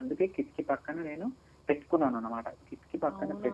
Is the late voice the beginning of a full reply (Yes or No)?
No